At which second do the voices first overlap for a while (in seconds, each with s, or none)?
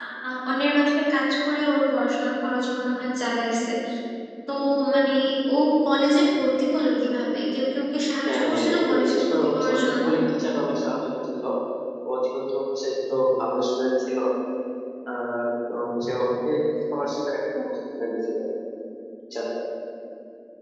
8.3 s